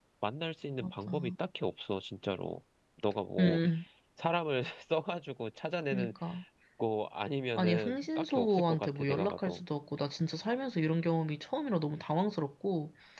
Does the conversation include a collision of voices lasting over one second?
Yes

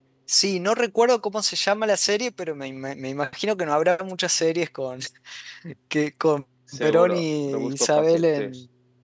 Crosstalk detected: Yes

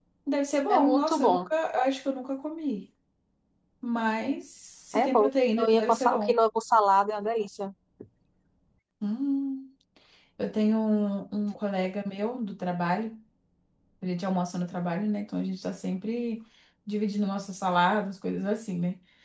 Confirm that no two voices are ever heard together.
No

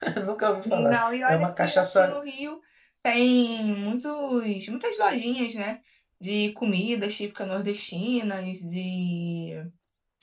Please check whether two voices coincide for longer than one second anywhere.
Yes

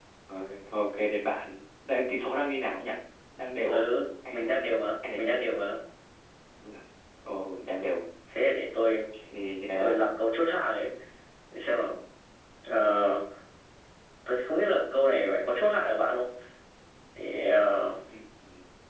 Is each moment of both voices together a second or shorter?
Yes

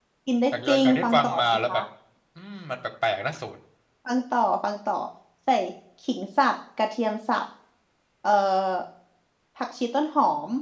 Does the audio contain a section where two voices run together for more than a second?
Yes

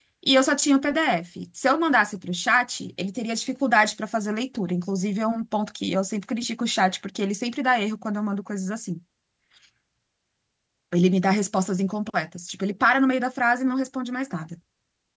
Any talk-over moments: No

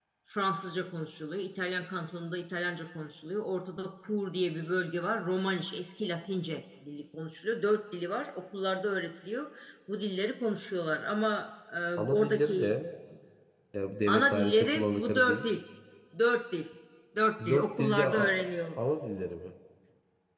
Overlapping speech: Yes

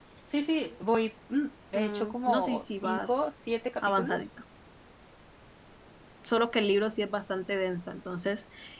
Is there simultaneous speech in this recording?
Yes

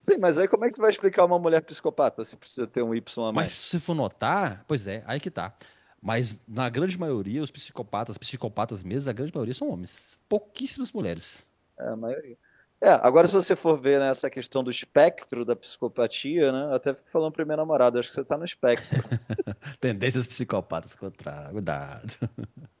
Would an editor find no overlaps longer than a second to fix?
Yes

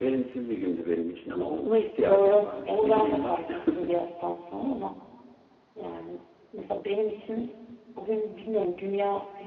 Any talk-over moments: Yes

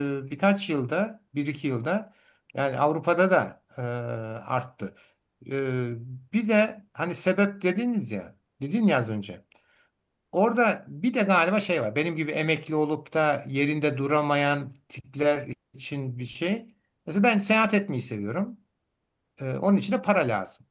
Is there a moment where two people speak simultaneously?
No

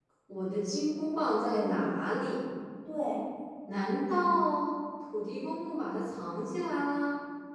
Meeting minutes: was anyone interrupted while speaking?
Yes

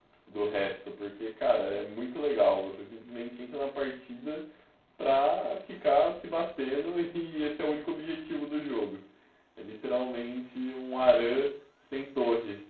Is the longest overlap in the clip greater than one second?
No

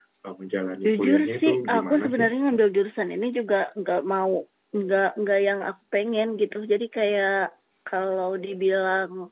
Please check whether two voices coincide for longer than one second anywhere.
Yes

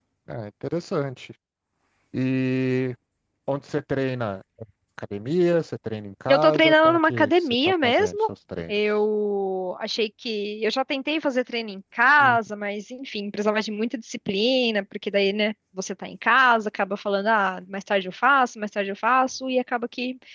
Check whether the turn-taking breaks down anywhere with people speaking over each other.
Yes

